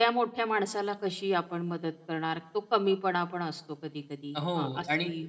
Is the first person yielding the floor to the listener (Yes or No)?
Yes